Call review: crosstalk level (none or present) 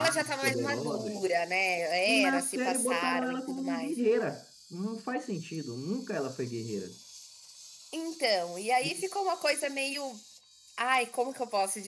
present